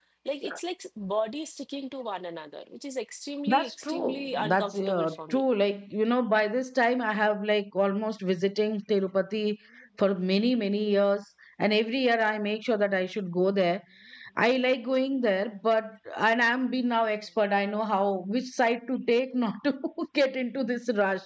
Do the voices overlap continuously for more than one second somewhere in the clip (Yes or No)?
Yes